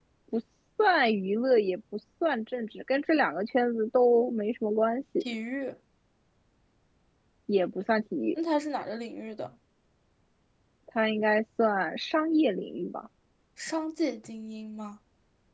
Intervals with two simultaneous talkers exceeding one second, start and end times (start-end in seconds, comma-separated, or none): none